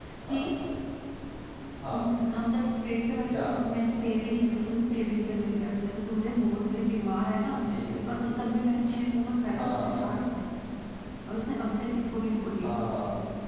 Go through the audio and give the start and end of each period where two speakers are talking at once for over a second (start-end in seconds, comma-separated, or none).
none